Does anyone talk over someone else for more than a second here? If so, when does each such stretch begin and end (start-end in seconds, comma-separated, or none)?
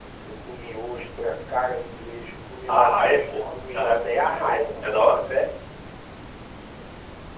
2.7-5.2